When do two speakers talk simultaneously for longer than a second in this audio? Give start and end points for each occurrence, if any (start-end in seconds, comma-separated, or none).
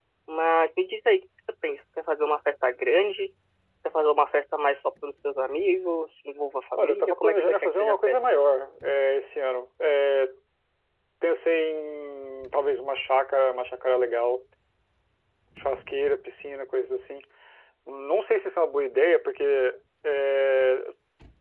6.8-8.2